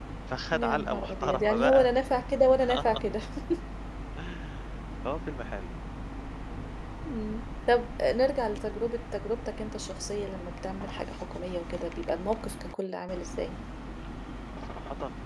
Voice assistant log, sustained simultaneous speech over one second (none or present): present